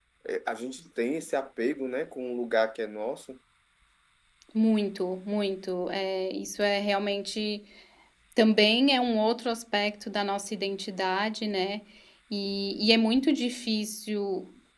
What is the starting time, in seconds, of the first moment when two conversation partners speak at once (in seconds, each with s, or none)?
none